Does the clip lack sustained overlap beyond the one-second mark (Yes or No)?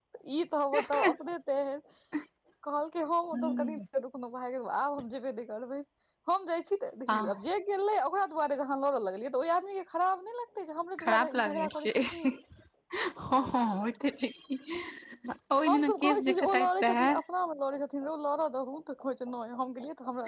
No